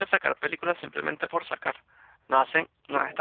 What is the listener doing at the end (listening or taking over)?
listening